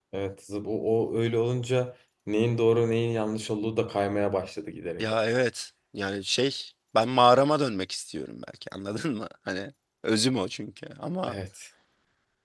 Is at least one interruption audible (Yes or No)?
No